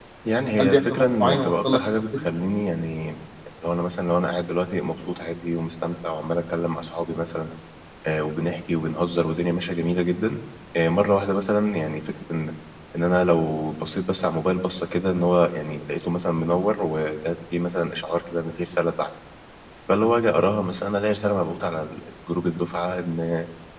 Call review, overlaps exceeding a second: present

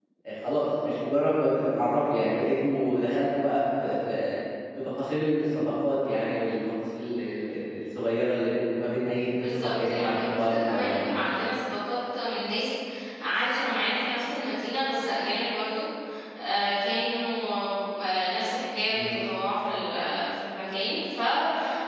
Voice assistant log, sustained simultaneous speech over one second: present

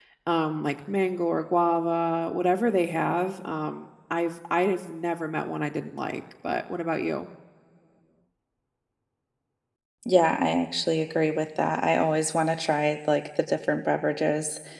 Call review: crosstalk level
none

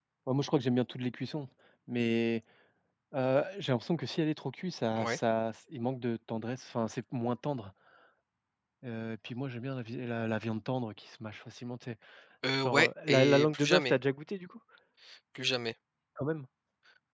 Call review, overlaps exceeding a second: present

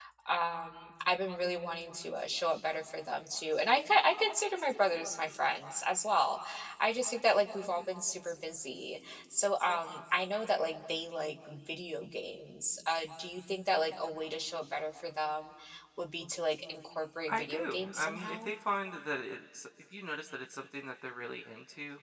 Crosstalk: present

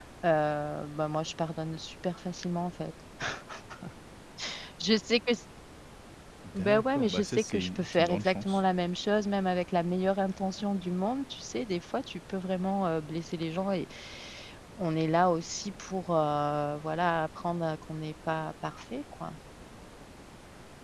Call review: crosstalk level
present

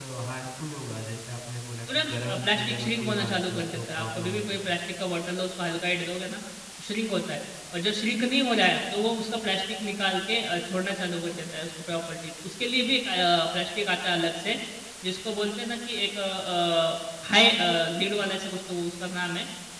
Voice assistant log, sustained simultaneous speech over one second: present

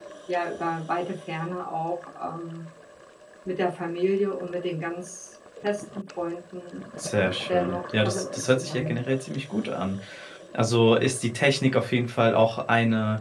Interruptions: present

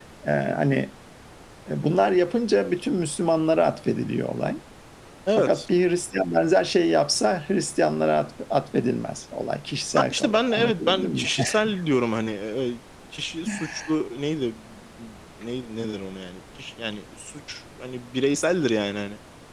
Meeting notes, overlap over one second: present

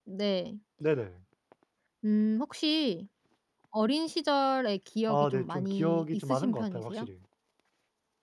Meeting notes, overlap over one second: present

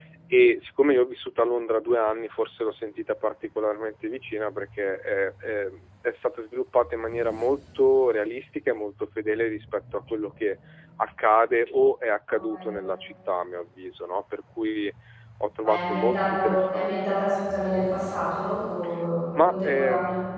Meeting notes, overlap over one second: present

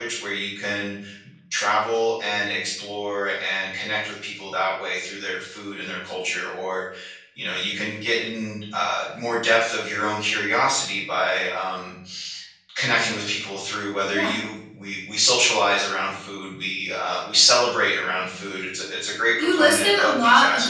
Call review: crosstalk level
present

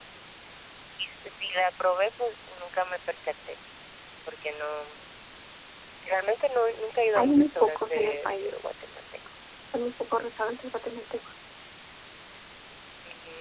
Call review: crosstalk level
present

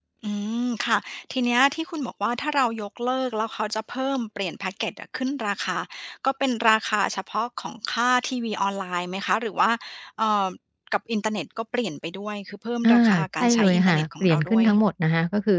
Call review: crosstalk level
present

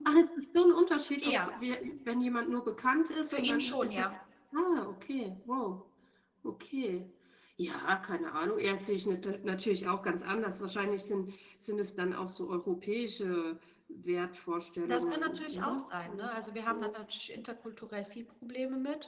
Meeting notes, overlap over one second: present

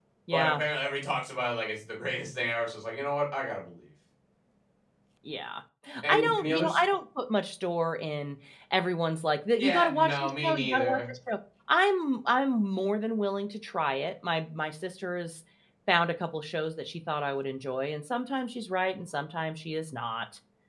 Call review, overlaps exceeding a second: present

